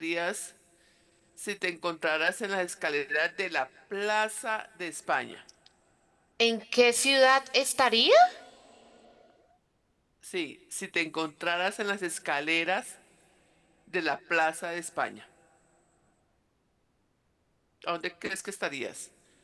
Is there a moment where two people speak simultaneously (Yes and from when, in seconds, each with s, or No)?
No